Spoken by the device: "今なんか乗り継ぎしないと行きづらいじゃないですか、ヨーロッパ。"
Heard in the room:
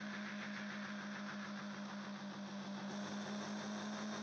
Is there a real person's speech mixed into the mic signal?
No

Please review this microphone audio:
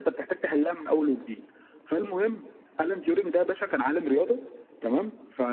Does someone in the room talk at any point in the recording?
No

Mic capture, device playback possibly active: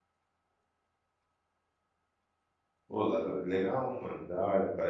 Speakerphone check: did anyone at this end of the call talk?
Yes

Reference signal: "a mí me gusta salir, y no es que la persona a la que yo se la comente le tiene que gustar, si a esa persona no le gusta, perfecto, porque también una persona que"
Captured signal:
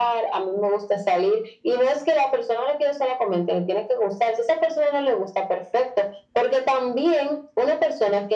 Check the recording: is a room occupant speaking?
No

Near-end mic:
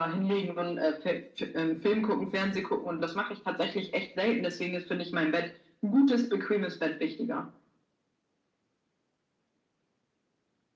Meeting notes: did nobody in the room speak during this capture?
Yes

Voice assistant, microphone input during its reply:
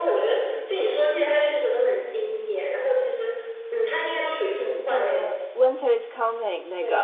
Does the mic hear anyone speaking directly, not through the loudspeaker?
Yes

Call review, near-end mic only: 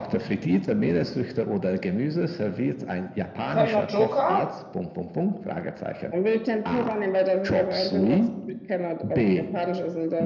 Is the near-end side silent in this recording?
No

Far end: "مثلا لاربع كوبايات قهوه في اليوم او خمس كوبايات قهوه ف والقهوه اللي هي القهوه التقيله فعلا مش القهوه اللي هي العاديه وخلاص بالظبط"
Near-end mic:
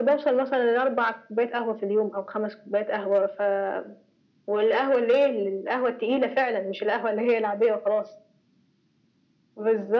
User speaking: No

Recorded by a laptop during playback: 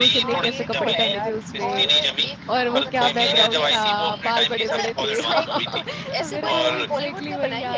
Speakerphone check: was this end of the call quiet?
No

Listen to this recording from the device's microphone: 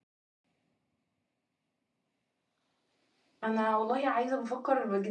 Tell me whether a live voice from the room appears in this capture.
Yes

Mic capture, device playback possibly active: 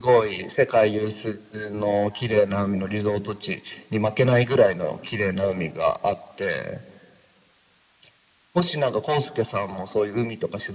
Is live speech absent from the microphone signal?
Yes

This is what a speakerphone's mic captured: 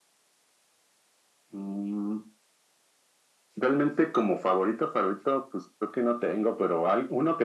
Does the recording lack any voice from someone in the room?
Yes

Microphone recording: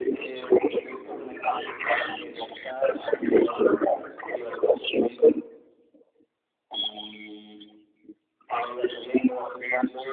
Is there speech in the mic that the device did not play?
No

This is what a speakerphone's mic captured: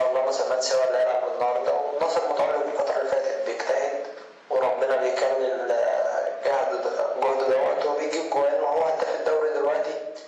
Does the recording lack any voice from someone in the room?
Yes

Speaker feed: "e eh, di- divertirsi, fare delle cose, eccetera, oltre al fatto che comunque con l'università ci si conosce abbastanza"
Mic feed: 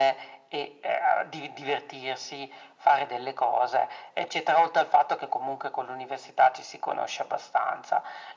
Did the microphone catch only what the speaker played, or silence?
Yes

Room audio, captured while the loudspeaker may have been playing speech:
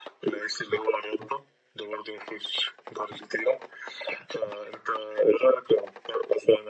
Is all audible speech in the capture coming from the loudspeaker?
Yes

